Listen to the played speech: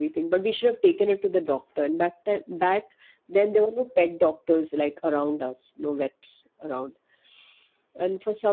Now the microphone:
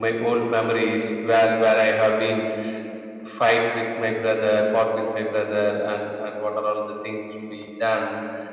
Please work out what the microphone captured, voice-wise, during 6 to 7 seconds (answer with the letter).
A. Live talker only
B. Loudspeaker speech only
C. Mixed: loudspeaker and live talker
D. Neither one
A